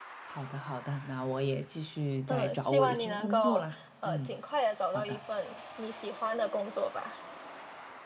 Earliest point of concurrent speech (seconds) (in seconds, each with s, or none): 2.3 s